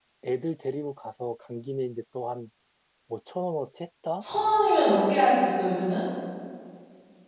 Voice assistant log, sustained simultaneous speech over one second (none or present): none